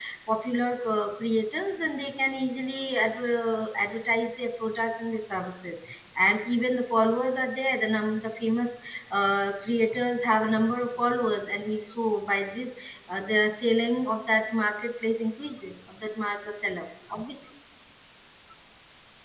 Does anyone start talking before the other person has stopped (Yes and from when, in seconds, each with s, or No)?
No